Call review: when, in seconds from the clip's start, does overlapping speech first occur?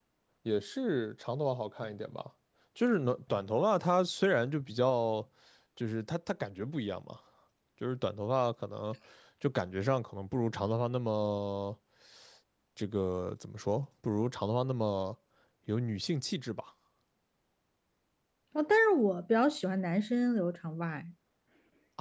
none

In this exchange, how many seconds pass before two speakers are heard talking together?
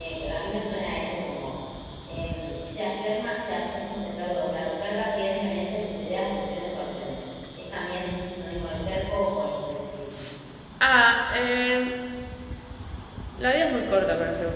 none

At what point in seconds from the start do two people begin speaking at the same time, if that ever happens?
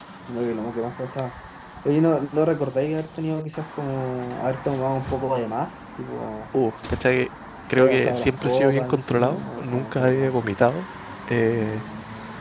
7.8 s

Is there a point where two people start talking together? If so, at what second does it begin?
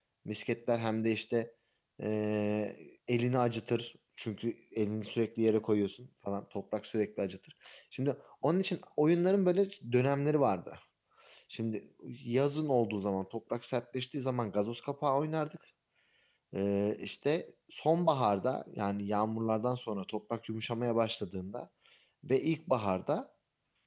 none

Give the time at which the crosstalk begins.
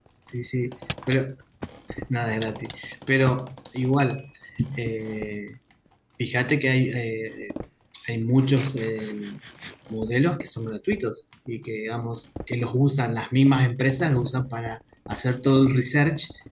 none

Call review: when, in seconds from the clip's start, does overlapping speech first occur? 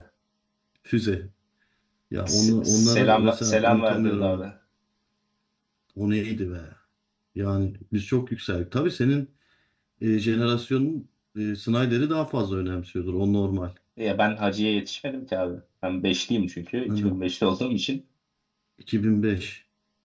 2.3 s

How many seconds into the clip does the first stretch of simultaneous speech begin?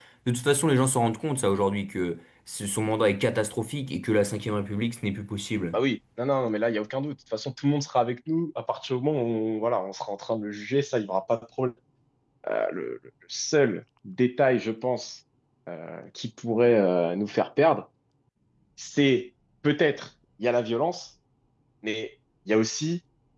none

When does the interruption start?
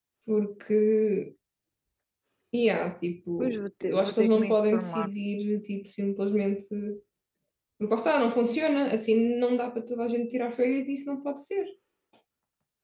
3.4 s

